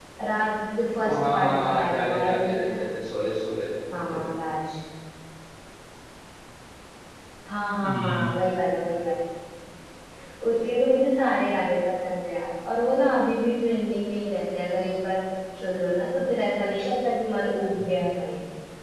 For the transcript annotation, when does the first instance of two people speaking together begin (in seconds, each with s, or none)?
1.0 s